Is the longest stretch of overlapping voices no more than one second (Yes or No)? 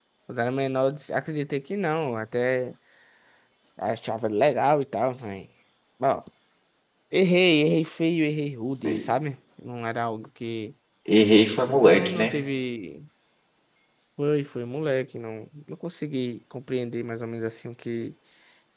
Yes